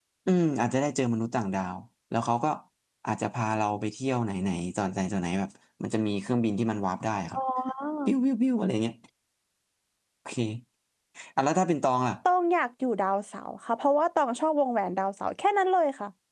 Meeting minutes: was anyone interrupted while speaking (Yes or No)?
No